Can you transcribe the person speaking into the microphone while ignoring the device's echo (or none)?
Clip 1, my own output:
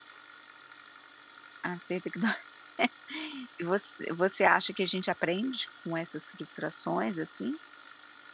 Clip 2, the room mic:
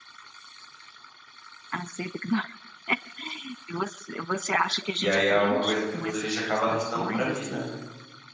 E aí é uma coisa que depois a gente acaba arrastando pra vida, né.